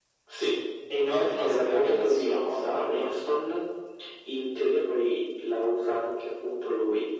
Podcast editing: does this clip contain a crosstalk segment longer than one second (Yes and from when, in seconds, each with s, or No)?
Yes, from 1.1 s